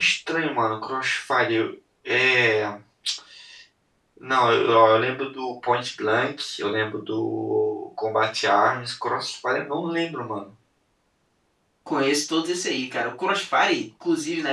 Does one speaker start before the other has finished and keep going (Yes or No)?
No